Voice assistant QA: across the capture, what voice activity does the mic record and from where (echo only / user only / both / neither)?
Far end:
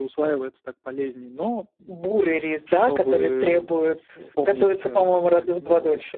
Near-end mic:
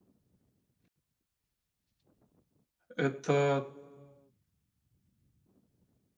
user only